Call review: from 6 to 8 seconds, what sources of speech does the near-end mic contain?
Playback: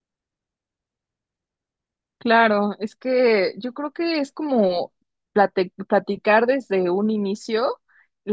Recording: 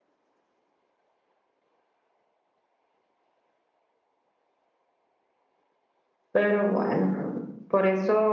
user only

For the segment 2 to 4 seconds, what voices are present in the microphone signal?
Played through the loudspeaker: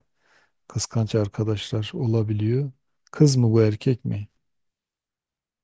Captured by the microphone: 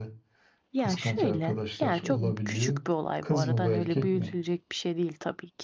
both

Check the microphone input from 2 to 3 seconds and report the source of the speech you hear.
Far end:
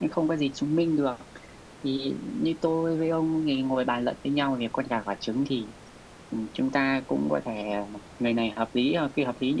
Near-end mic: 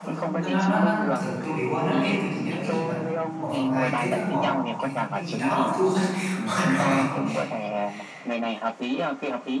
both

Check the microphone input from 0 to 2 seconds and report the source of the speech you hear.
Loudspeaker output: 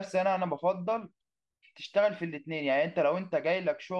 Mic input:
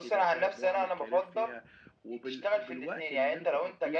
both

